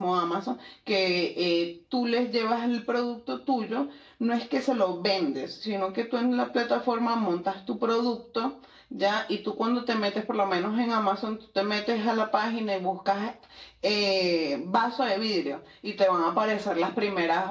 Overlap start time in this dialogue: none

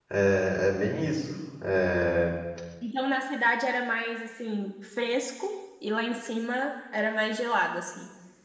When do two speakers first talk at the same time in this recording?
none

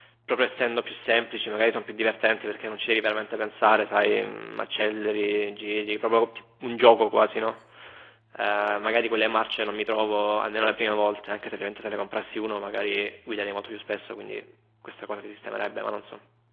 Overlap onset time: none

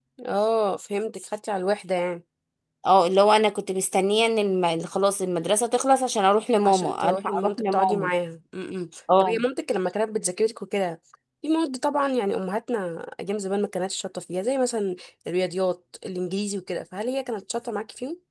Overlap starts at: 6.6 s

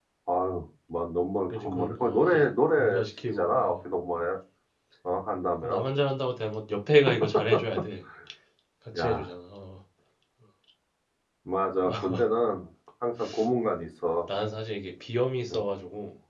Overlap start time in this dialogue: 1.6 s

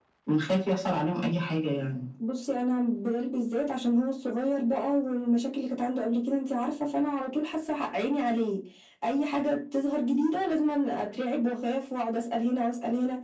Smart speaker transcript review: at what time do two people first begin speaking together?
none

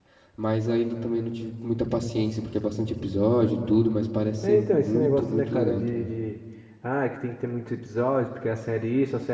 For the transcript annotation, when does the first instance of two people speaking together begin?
4.4 s

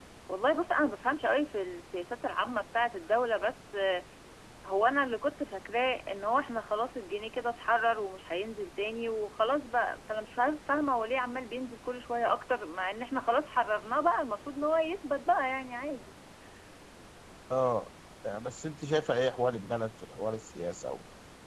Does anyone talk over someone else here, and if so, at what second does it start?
none

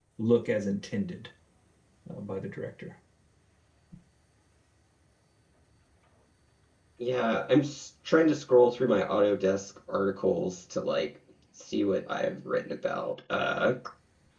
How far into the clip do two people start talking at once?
none

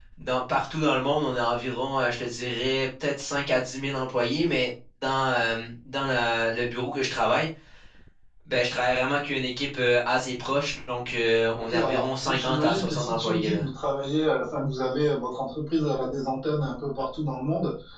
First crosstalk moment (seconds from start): 11.5 s

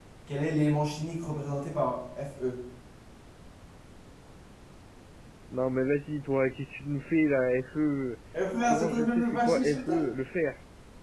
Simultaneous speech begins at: 8.7 s

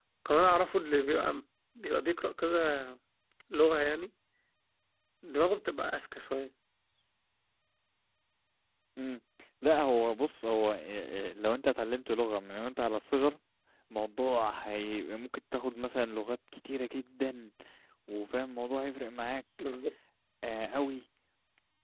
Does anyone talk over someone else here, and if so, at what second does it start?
none

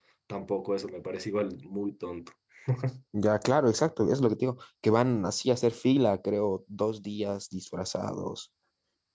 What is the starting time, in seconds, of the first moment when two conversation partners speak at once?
none

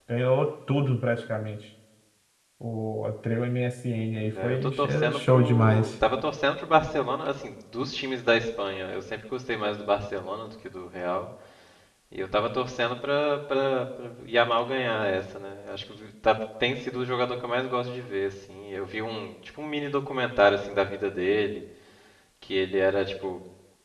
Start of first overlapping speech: 4.4 s

